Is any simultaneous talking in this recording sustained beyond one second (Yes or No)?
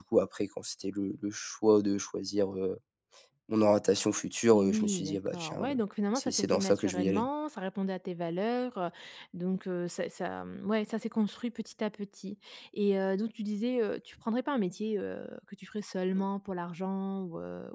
Yes